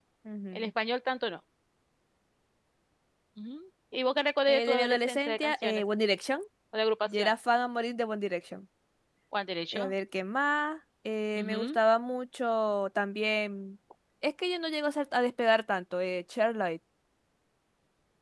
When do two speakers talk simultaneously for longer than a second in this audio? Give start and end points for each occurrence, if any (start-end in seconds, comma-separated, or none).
4.5-5.8